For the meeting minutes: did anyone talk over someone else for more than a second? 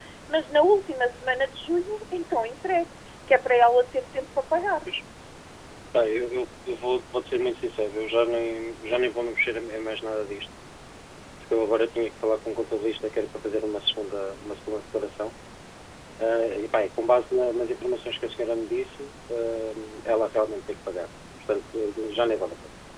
No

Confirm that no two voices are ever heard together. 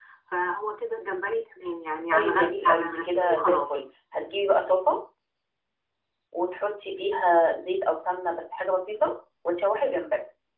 No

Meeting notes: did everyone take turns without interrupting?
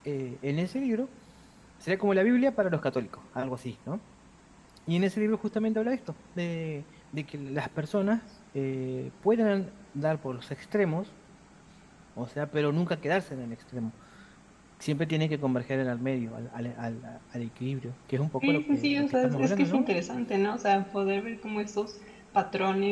No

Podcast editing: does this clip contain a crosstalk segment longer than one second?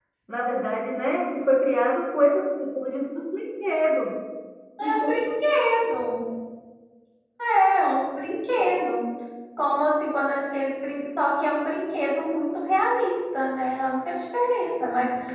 No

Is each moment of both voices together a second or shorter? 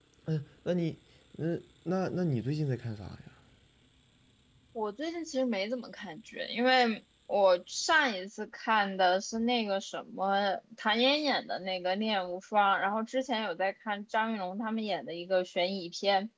Yes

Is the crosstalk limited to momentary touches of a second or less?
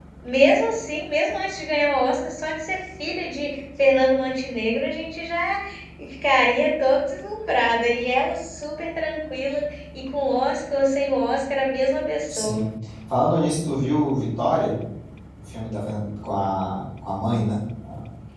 Yes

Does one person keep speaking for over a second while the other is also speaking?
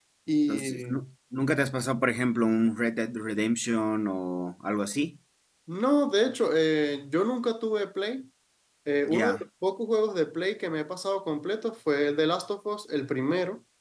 No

